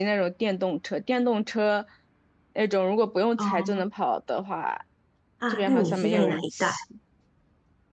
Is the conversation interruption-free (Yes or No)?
No